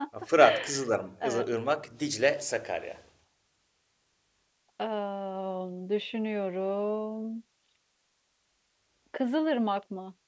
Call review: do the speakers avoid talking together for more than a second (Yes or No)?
Yes